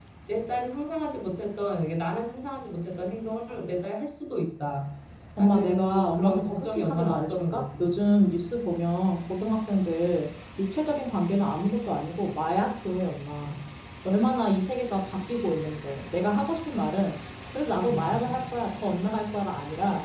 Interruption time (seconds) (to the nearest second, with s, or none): 5 s